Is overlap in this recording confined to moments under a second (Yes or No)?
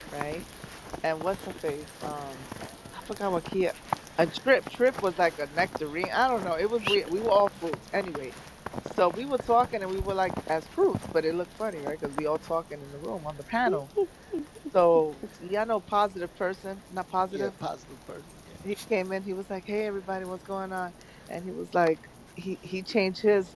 Yes